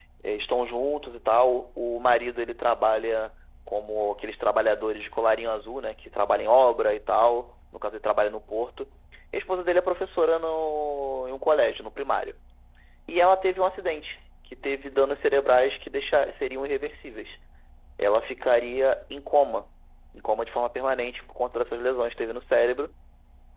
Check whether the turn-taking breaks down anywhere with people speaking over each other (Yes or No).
No